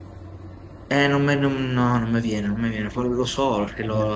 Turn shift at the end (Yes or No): No